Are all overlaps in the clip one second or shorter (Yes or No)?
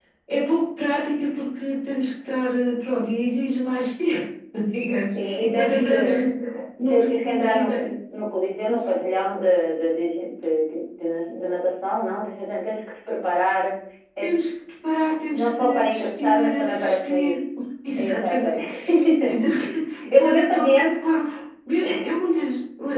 No